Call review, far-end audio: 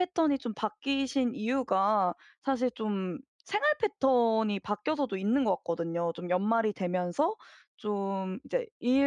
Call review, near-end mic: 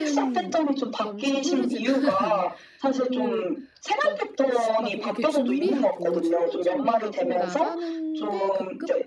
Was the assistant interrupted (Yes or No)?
Yes